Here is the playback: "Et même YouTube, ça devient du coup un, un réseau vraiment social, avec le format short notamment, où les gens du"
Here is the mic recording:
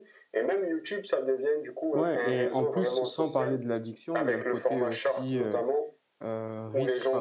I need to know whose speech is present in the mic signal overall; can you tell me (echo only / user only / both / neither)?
both